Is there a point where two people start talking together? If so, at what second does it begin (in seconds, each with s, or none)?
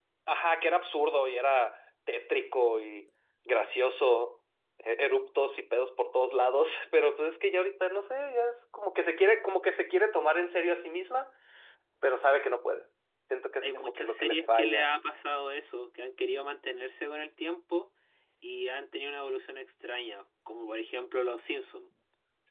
13.6 s